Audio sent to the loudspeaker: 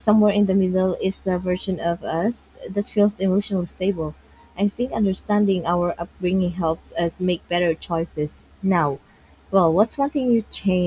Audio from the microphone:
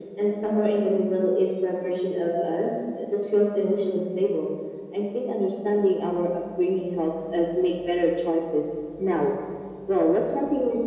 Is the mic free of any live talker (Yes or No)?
Yes